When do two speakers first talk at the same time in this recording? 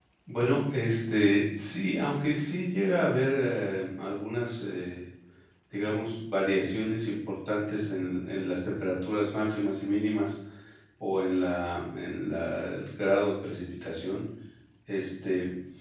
none

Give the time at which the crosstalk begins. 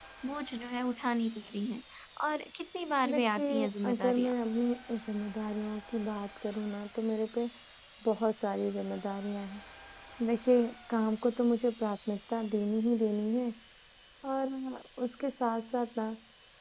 3.1 s

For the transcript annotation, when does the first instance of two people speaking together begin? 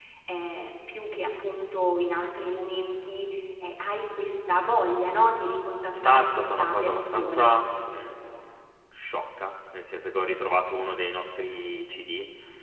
5.9 s

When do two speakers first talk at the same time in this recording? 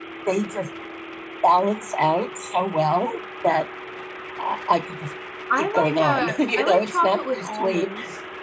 5.6 s

